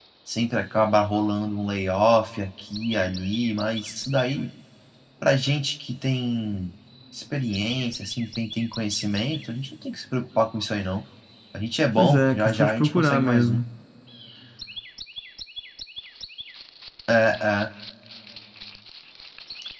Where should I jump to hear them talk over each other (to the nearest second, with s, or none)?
12 s